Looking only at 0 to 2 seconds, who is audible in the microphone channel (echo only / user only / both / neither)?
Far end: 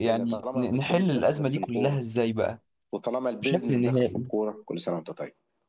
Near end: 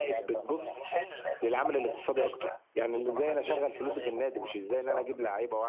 both